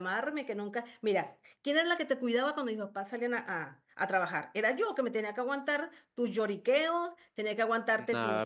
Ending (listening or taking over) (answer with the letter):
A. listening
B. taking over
B